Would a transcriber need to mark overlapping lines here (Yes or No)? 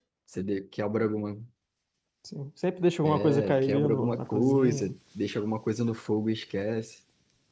Yes